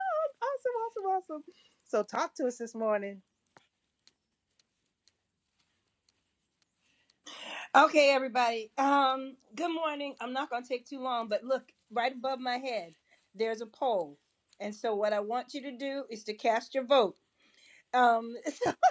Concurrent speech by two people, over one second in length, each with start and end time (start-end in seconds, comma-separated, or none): none